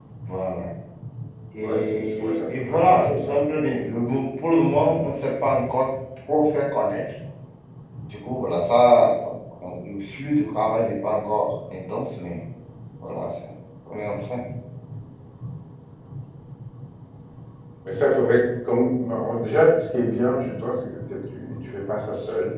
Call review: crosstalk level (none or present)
present